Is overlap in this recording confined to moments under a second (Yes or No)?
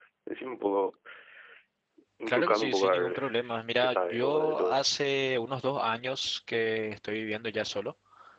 No